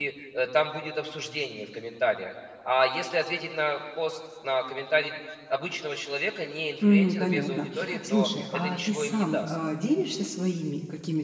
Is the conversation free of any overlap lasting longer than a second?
No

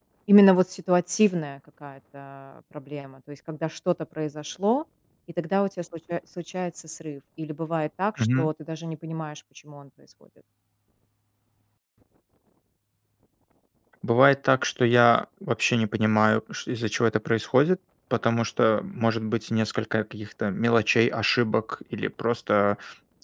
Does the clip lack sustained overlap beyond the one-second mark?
Yes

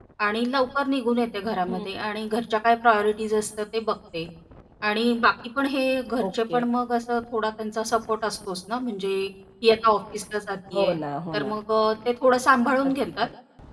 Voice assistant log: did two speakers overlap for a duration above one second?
No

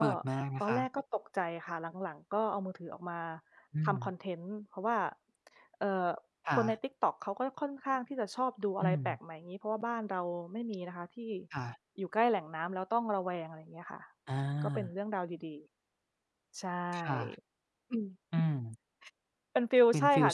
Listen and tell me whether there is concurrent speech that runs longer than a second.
No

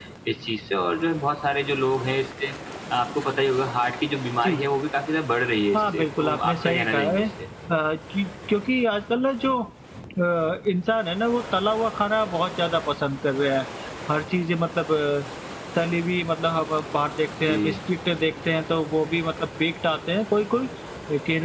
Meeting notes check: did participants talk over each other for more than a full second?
Yes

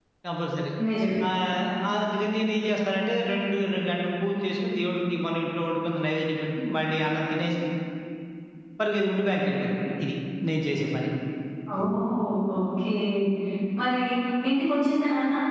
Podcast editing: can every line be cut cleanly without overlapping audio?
Yes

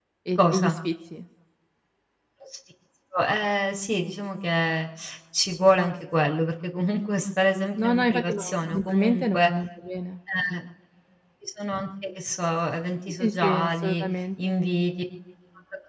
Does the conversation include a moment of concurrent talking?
Yes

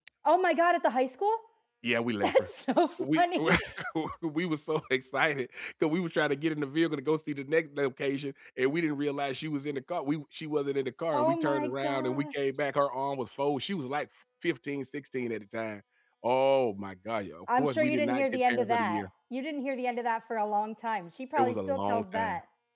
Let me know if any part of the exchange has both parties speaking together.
Yes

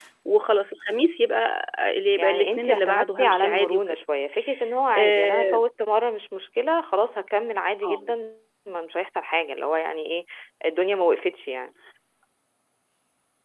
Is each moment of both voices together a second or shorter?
No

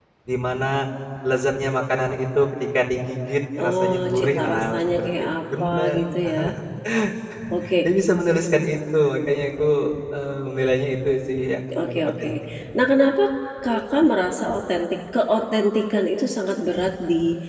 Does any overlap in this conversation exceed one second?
Yes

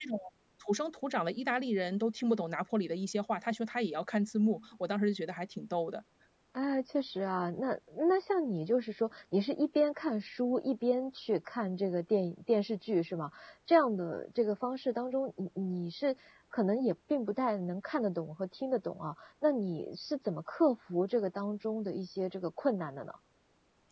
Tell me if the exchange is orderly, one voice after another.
Yes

